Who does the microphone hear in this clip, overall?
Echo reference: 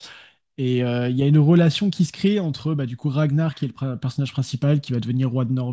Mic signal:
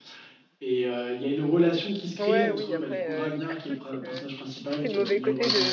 both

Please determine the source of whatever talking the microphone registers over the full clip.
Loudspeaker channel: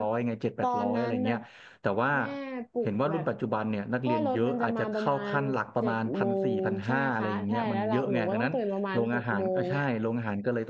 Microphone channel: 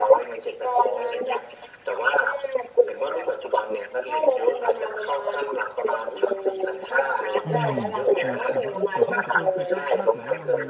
both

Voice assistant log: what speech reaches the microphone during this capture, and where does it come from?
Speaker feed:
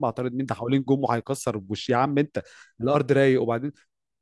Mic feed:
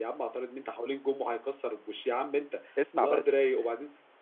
both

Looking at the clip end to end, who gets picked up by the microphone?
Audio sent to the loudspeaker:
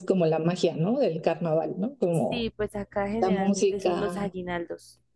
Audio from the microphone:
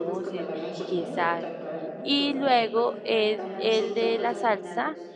both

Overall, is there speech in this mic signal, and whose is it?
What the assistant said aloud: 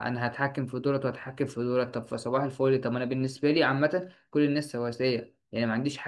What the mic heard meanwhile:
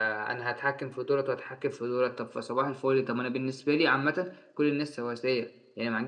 echo only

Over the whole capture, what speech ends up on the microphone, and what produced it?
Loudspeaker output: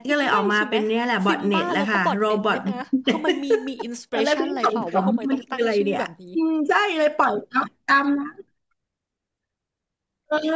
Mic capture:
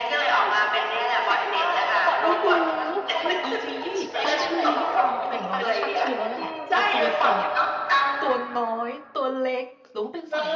both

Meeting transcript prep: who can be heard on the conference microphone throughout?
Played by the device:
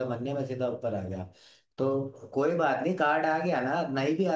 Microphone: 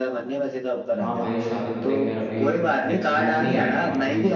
both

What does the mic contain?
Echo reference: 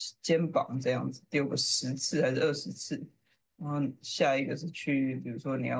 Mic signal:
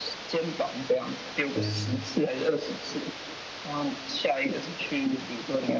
both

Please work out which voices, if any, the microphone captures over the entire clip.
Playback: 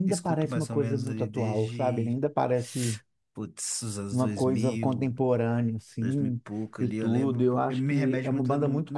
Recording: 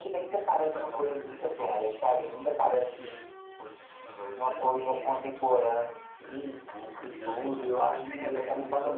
echo only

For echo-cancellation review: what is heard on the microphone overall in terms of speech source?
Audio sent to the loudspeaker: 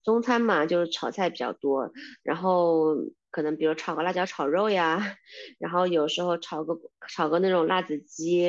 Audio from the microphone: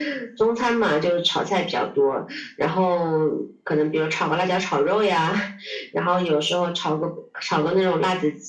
echo only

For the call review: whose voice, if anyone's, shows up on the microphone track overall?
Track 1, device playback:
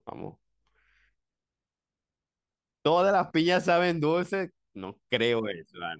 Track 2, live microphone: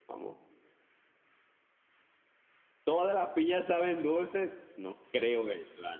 echo only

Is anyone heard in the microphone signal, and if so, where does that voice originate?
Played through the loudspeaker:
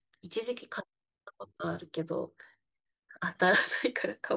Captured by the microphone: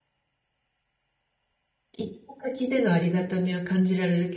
user only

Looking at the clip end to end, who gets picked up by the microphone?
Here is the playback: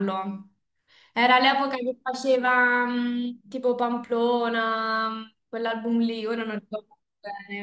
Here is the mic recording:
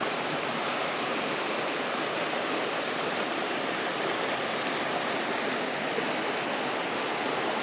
neither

